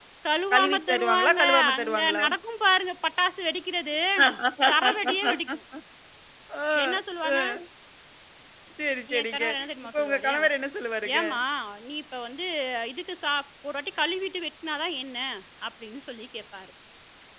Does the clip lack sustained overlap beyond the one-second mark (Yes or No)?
No